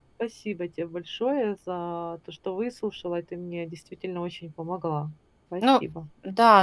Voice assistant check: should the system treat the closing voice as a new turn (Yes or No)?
Yes